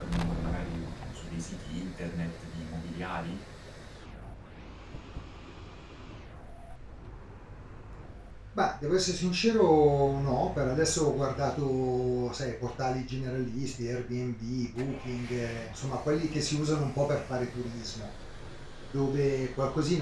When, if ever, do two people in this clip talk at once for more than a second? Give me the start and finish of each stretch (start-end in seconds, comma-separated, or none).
none